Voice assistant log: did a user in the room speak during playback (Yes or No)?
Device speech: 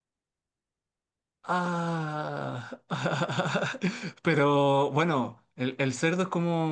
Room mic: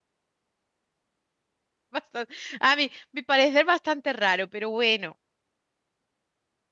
Yes